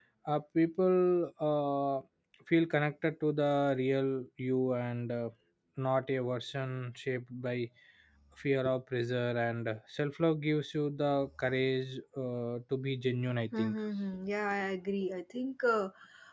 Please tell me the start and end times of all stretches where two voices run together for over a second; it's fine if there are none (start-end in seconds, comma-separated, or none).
none